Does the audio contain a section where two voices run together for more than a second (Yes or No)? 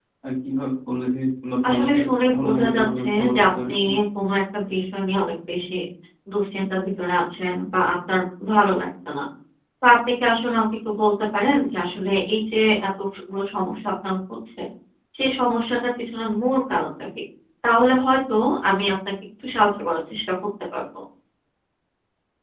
Yes